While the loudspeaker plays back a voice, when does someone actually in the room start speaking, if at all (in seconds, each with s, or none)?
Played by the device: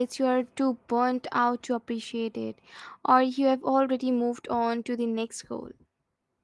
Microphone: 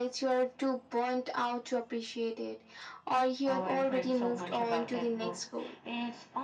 3.5 s